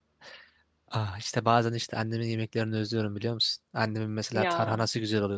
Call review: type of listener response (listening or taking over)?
listening